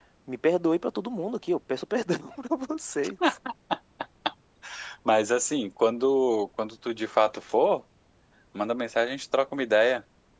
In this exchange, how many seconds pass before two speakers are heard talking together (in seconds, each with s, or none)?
none